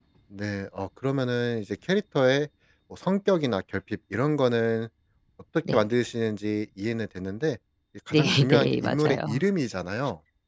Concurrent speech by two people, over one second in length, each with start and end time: 8.1-9.4

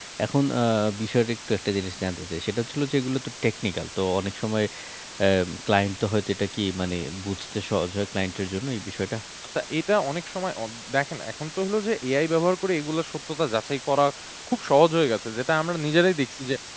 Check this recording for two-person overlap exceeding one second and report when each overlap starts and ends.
none

